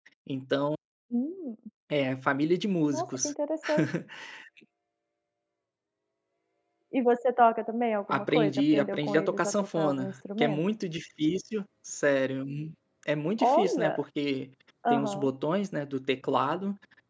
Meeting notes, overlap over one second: present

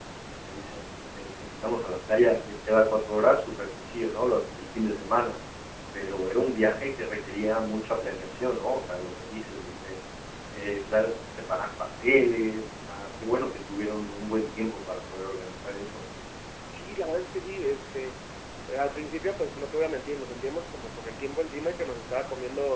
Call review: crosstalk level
none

